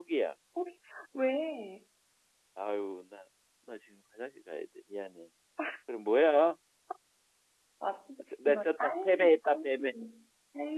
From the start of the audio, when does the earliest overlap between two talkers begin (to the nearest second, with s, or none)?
8 s